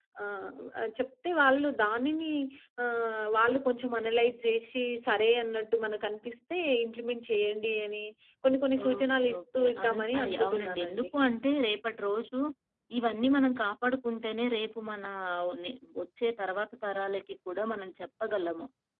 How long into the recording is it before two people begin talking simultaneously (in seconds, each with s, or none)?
9.0 s